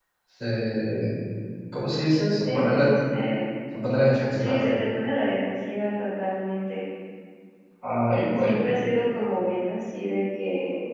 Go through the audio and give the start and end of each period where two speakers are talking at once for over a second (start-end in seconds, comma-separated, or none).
none